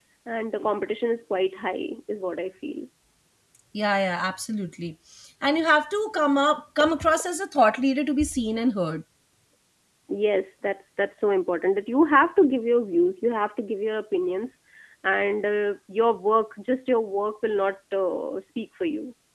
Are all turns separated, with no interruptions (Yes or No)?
Yes